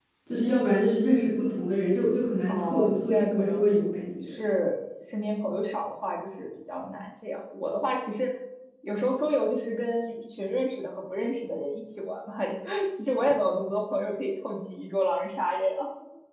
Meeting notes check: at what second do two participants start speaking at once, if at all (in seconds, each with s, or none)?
2.5 s